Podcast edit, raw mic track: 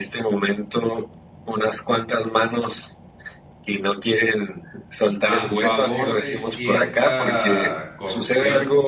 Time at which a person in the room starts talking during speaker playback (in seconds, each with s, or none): 5.2 s